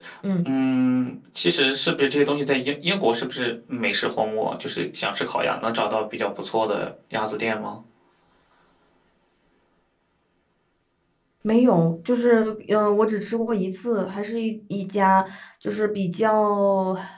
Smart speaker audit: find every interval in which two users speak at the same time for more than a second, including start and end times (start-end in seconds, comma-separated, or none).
none